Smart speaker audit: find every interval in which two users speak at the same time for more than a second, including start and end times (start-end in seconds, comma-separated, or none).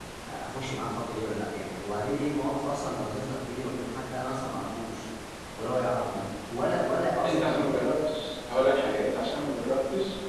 none